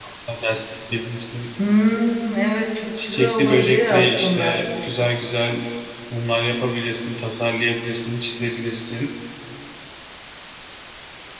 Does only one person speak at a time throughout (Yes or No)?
No